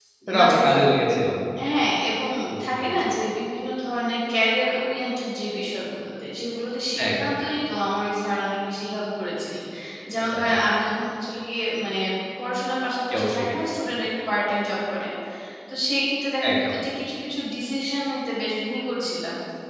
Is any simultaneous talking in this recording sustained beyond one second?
No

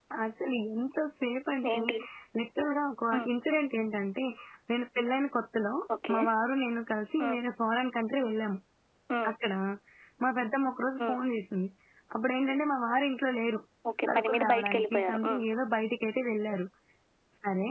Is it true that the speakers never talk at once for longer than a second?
No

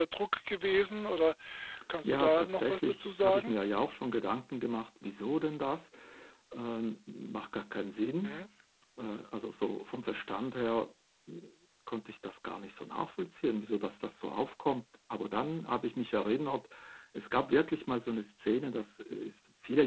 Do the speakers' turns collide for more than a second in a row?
Yes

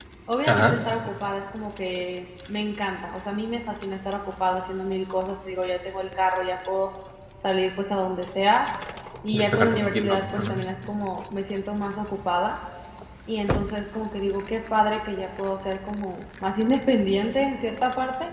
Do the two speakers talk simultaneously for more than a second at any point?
Yes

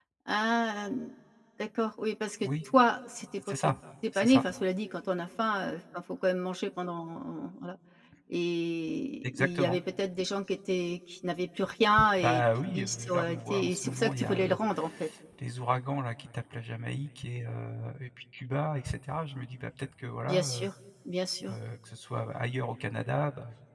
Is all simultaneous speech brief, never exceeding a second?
No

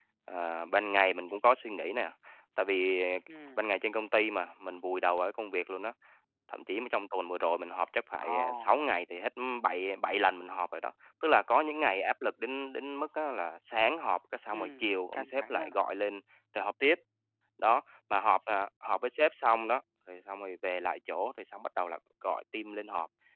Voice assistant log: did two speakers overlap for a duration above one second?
Yes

